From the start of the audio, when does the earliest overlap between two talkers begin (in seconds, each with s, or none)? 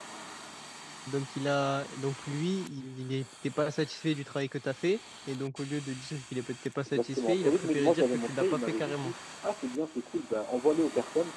6.9 s